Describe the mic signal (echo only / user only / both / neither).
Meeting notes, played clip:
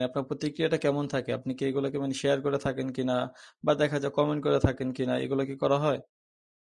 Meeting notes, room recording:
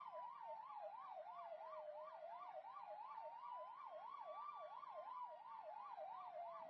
neither